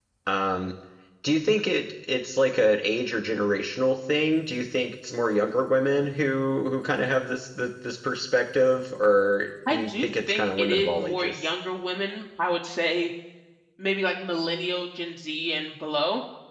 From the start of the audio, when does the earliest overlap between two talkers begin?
10 s

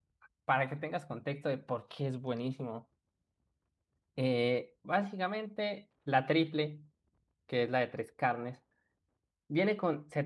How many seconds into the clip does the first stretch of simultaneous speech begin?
none

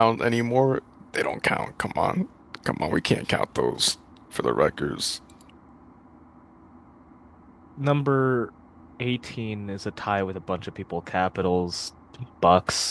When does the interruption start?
none

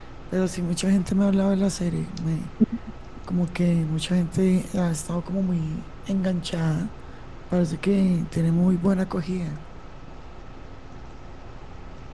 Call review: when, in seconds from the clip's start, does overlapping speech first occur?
none

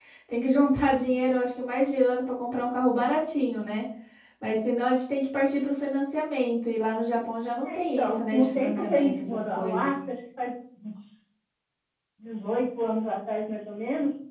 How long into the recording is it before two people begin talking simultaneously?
8 s

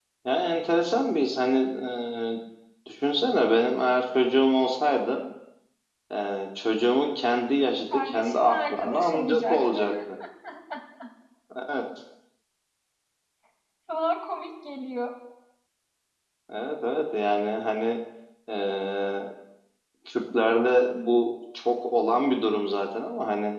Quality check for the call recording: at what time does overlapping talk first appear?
8 s

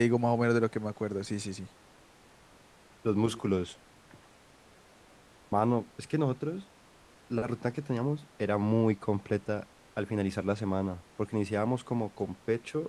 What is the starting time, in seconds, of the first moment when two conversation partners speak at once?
none

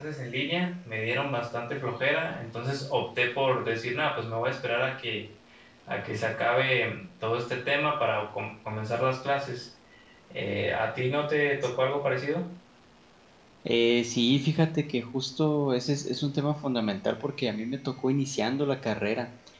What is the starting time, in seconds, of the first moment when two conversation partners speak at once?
none

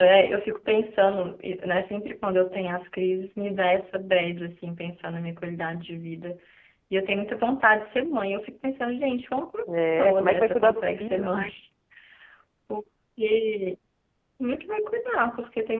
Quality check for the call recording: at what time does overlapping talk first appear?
10 s

